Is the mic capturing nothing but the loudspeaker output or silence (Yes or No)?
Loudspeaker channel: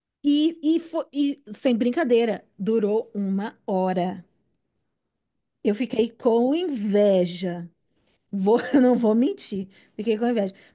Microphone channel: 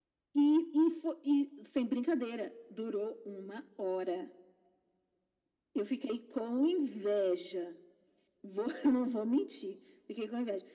Yes